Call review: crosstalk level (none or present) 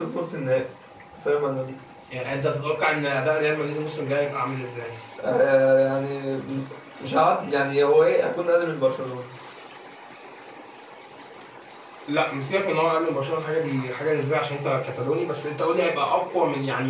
none